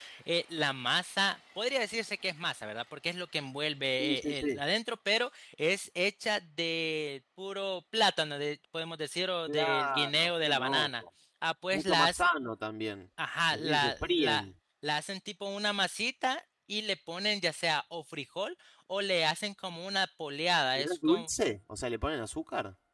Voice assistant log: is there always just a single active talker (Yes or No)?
No